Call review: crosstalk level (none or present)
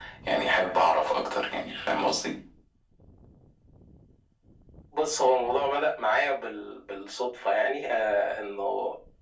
none